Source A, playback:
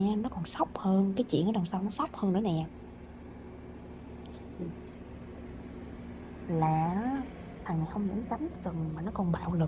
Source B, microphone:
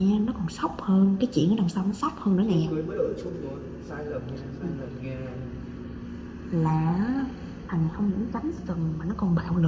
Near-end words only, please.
chưa cưới mới ở chung rồi sai lầm nha sai lầm nha

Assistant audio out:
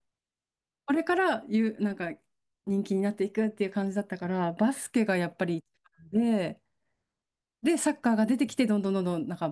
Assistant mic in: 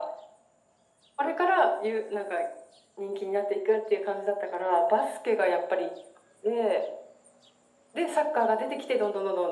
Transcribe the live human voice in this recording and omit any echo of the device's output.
none

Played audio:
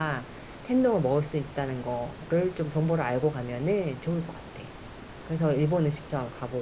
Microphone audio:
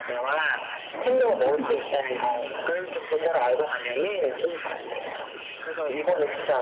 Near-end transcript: 아, 근데 그건 조금 아쉽다.

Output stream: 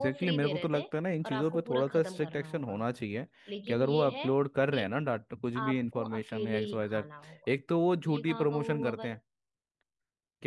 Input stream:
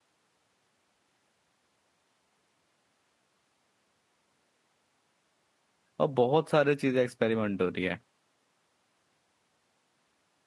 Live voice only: और बहुत सारे चीज़ें एक्सपेरिमेंट हो रही है

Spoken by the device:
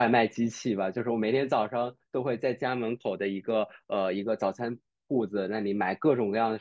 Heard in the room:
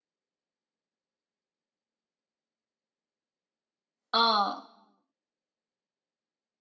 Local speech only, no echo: 嗯，

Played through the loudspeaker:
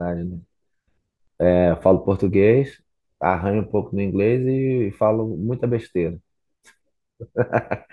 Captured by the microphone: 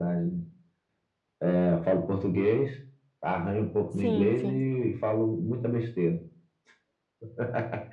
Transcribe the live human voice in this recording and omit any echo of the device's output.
Sim, sim.

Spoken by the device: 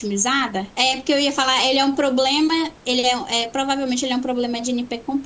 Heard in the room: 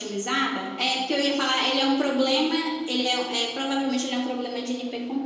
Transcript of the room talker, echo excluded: none

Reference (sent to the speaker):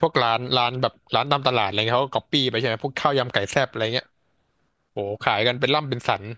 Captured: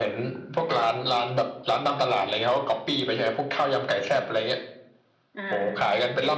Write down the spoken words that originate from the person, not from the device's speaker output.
อ่า

